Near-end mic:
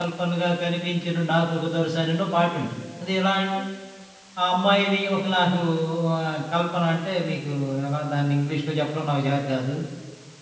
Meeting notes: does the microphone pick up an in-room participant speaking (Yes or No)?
Yes